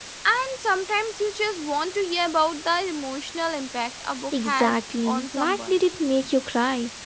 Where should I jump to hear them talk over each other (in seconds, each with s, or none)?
4.3 s